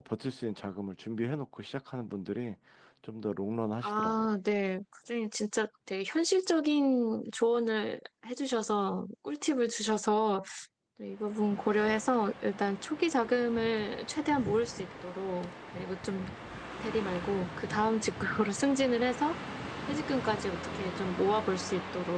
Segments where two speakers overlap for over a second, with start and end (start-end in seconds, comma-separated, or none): none